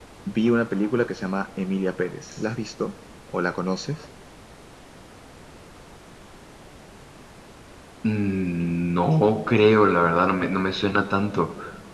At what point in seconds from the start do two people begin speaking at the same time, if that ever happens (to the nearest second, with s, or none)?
none